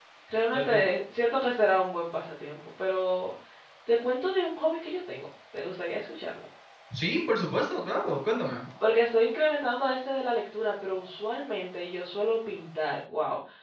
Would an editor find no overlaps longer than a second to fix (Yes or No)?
Yes